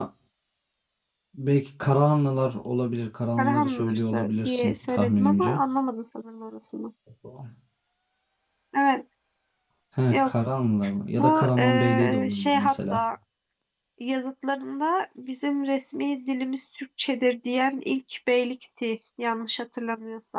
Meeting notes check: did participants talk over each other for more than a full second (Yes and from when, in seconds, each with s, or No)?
Yes, from 3.4 s